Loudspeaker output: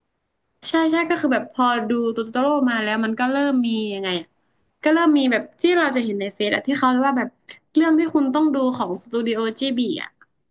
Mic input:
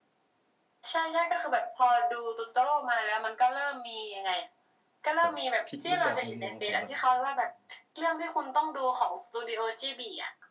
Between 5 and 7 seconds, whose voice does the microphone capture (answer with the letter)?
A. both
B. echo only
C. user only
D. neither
A